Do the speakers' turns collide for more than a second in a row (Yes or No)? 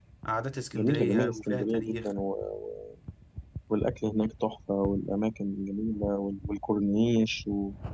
Yes